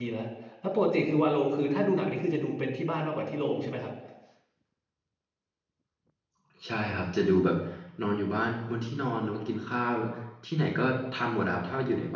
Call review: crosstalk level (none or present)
none